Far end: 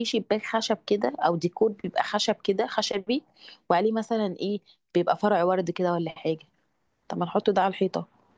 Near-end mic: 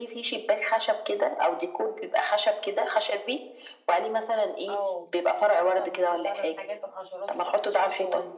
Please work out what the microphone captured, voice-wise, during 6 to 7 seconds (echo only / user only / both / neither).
both